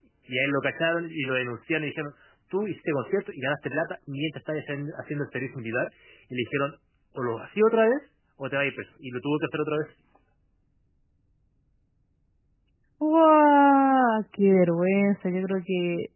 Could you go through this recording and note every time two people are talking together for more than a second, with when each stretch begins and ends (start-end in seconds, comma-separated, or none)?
none